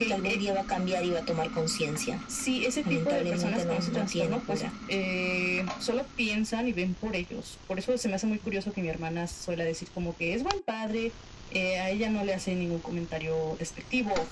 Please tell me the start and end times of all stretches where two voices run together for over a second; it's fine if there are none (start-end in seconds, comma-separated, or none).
2.9-4.6